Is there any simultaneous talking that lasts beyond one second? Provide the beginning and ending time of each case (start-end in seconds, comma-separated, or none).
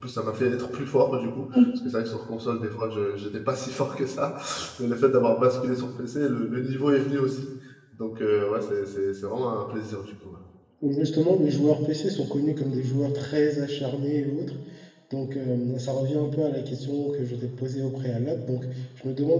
none